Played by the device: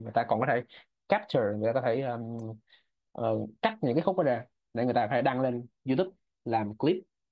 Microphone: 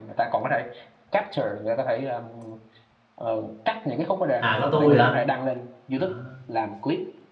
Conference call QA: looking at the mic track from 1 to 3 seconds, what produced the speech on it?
echo only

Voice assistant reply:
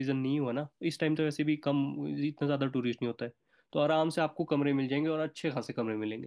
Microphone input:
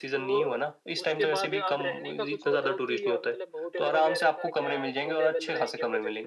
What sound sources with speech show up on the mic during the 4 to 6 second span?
both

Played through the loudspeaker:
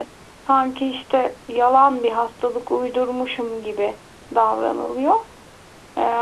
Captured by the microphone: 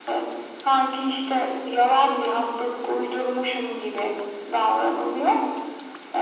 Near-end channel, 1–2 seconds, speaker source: echo only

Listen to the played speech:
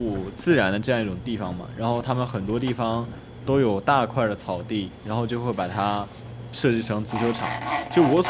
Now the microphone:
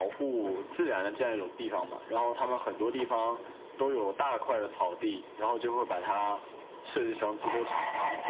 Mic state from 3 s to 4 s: echo only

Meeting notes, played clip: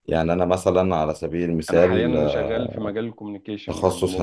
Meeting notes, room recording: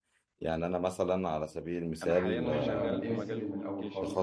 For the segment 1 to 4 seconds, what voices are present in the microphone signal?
both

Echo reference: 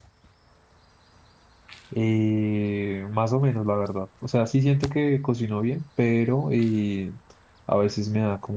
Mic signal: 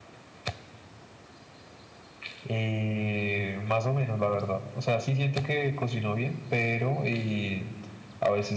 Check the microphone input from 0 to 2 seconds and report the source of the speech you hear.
neither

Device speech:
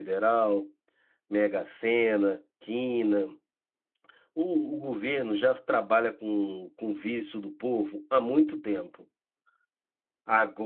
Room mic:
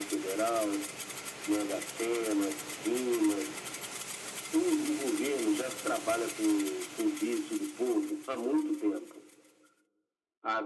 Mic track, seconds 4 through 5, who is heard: echo only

